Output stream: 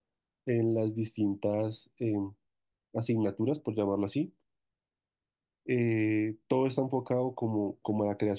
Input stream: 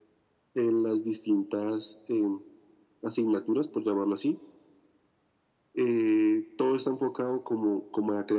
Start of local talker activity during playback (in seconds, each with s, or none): none